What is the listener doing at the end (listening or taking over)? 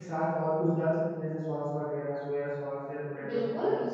taking over